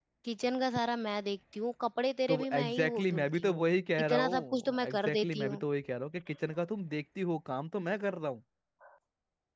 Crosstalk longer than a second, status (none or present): present